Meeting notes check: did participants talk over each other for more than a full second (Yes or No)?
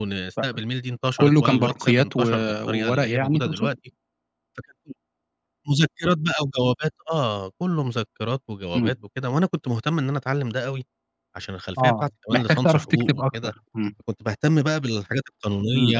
Yes